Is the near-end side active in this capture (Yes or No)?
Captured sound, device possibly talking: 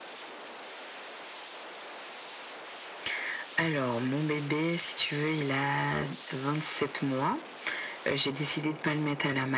No